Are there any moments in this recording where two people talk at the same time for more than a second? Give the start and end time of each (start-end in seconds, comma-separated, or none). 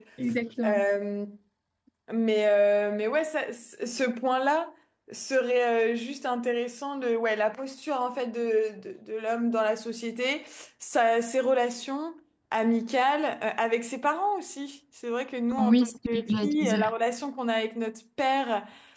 15.6-16.9